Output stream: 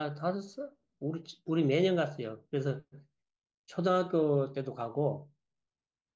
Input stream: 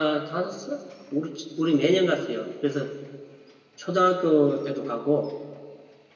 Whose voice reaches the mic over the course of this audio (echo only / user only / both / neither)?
echo only